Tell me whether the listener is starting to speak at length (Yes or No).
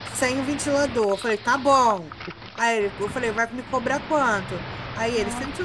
No